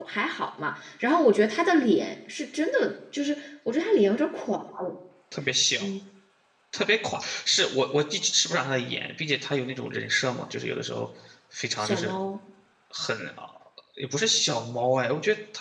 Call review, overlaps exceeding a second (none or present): none